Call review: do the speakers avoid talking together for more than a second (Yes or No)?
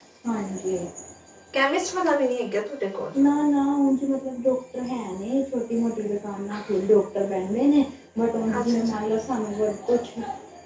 Yes